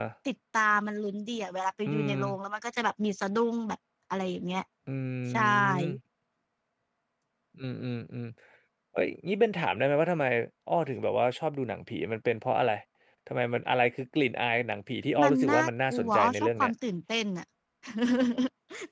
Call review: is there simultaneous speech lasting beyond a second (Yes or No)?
Yes